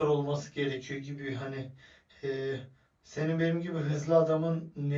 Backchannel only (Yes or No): Yes